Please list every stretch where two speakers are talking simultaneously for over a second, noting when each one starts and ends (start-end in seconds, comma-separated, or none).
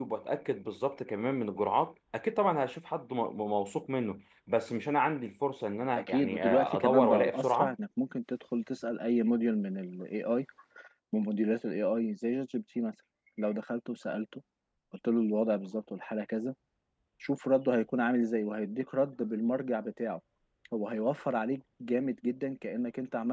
6.0-7.8